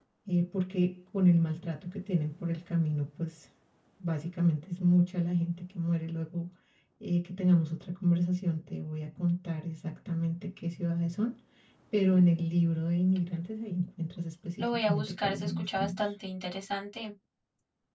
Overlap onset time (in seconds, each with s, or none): 14.6 s